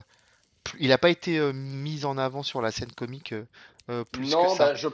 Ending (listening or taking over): taking over